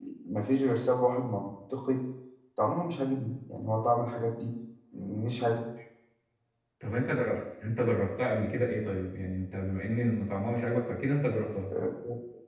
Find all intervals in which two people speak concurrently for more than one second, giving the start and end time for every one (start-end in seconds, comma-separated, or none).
none